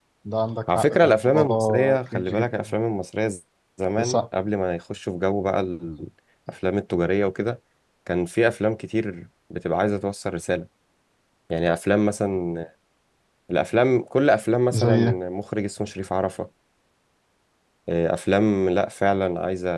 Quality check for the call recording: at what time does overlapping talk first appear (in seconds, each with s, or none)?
0.8 s